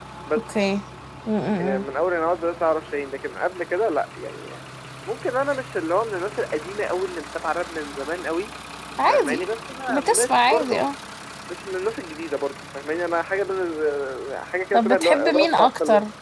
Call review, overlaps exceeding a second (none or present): present